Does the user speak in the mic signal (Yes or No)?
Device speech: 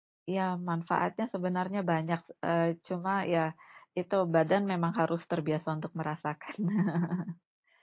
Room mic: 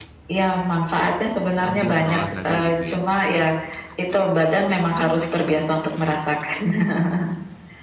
Yes